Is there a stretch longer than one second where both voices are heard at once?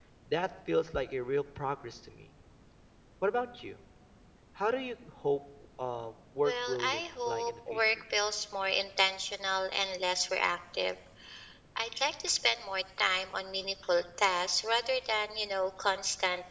Yes, from 6.4 s

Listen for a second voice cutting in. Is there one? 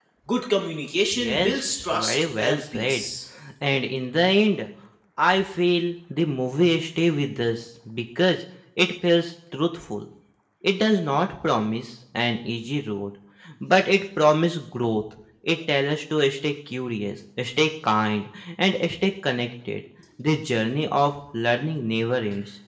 Yes, from 1.1 s

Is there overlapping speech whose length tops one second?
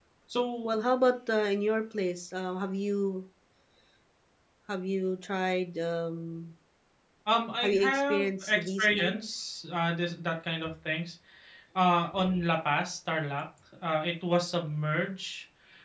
Yes, from 7.6 s

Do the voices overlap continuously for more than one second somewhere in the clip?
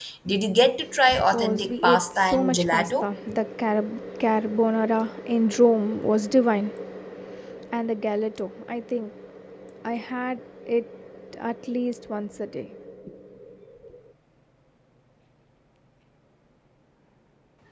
Yes, from 1.1 s

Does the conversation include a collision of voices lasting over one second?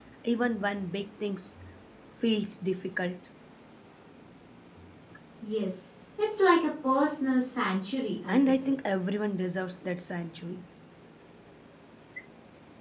No

